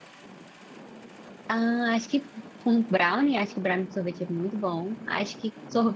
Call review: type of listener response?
listening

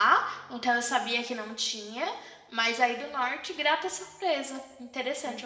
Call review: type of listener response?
taking over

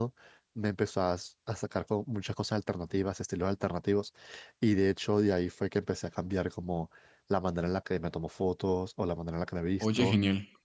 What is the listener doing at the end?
listening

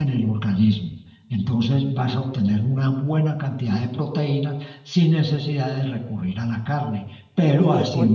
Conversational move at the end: listening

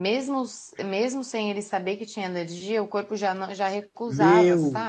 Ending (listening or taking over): taking over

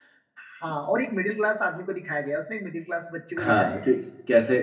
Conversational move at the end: taking over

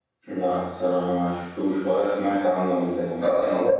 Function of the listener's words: taking over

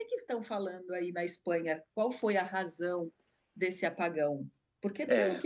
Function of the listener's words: listening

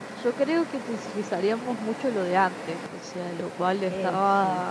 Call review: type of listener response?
listening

